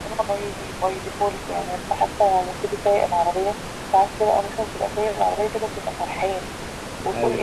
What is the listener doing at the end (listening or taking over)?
listening